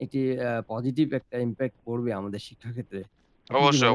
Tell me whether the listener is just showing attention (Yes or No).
No